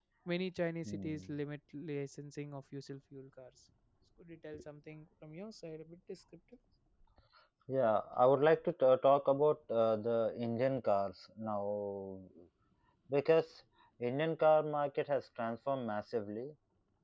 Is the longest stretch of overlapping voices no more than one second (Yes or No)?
Yes